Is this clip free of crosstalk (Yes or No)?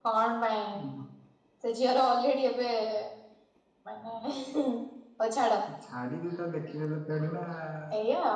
Yes